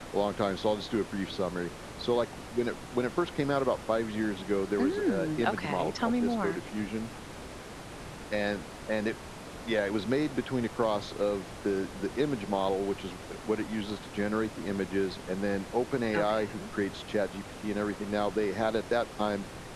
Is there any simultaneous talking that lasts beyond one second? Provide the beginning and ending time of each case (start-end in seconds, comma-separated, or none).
4.8-6.6